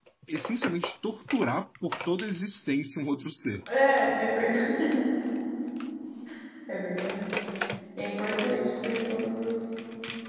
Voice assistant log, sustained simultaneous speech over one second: none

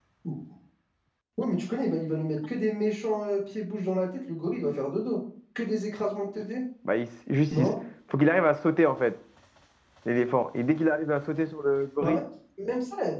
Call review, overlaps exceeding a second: none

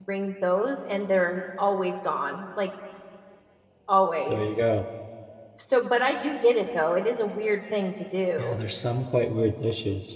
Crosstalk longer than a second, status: none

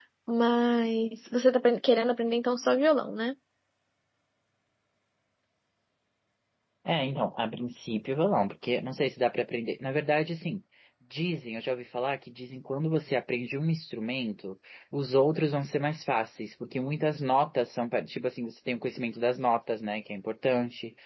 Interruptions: none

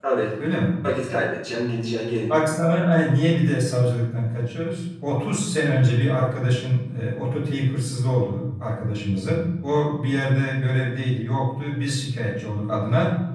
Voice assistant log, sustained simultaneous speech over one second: none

